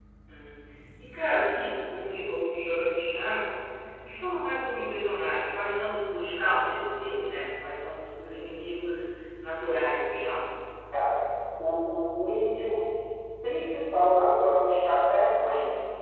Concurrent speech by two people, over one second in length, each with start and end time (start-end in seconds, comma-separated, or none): none